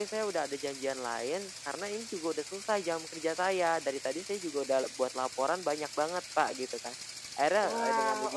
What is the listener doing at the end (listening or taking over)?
listening